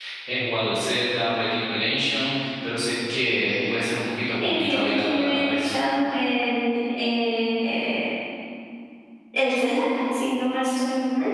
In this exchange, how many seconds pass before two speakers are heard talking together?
4.4 s

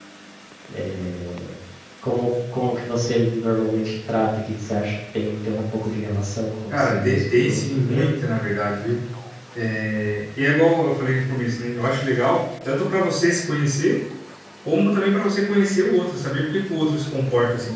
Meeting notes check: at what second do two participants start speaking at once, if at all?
6.7 s

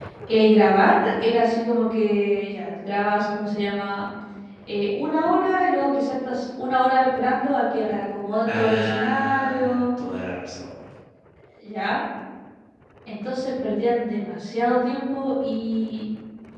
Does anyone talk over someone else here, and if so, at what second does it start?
8.5 s

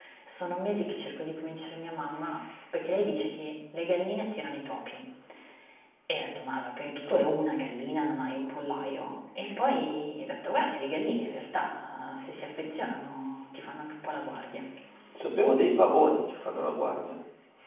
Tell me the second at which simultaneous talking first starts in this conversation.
none

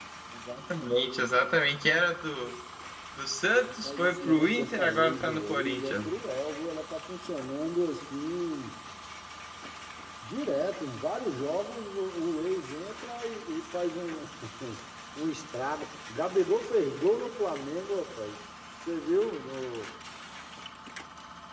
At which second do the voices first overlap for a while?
3.8 s

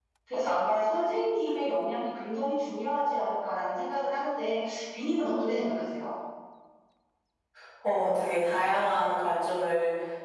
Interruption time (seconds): none

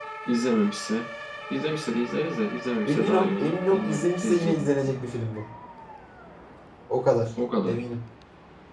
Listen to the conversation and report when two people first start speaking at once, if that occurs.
2.9 s

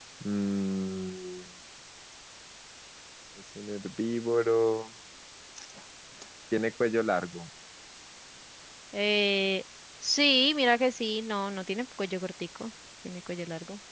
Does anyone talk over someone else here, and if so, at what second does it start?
none

